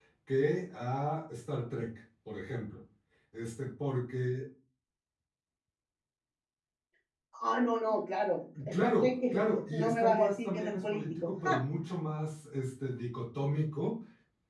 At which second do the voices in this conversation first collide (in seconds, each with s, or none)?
8.6 s